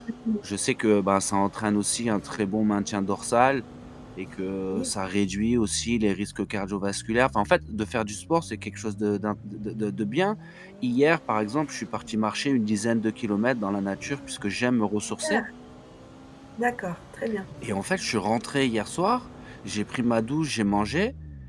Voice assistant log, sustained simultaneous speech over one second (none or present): none